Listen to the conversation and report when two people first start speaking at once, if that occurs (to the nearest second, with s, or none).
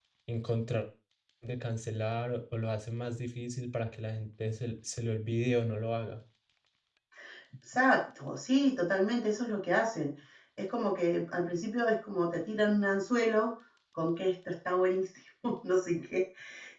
none